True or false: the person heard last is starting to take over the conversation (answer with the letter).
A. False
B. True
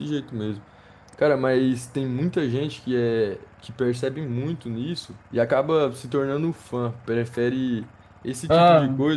A